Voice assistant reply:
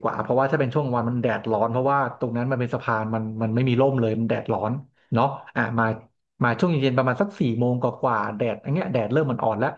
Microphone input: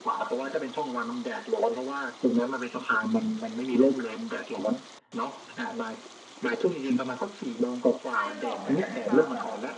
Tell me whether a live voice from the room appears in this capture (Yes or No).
Yes